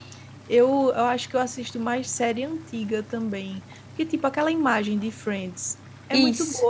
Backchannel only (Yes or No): Yes